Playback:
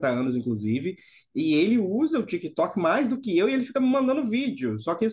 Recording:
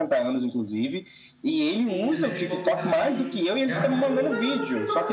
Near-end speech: present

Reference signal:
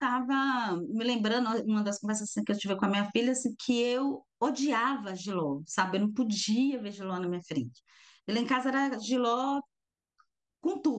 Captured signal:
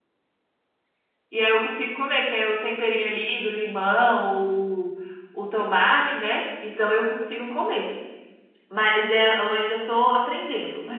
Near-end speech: present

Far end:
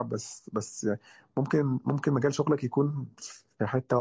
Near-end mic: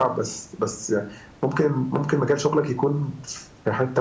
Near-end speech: none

